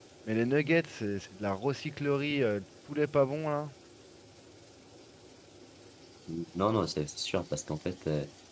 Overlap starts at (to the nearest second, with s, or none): none